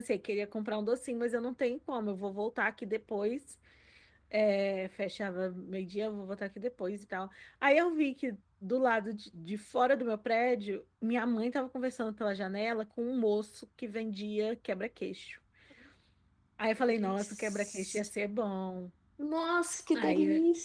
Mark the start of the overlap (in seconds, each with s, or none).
16.9 s